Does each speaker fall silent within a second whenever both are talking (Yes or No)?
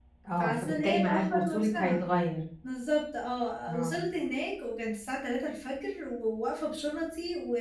No